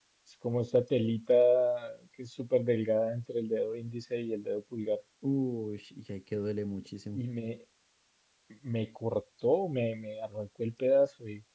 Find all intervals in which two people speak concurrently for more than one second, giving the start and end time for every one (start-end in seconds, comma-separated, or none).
none